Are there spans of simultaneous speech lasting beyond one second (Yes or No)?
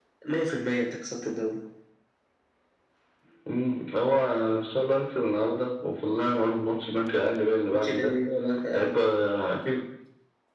No